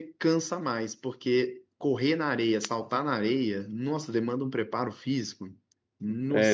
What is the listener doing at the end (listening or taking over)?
taking over